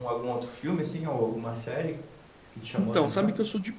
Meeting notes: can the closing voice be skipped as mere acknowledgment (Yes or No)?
No